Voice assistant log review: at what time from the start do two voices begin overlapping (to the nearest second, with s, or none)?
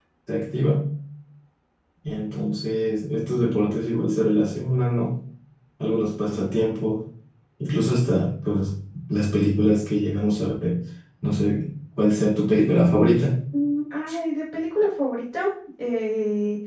none